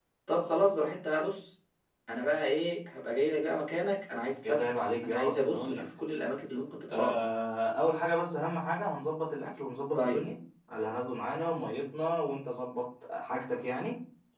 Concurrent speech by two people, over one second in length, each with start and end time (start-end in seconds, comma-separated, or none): 4.4-5.8